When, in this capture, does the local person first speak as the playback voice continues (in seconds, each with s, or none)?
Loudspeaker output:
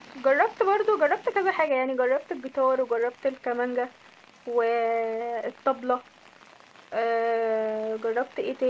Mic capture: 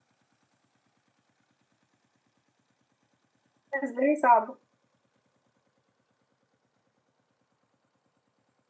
3.7 s